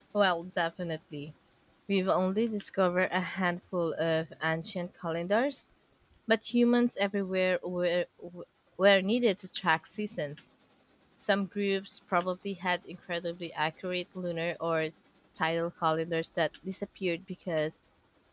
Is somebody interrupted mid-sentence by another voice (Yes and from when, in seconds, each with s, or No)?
No